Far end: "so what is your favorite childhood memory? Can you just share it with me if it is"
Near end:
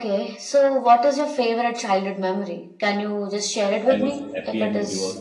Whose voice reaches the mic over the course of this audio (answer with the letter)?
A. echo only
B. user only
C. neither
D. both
D